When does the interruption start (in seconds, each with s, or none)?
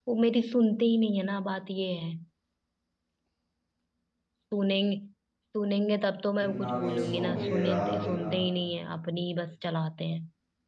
6.5 s